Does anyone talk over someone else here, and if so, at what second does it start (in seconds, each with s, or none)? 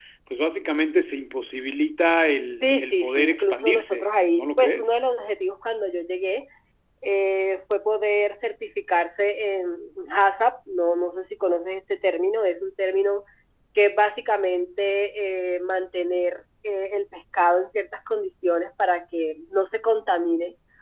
2.6 s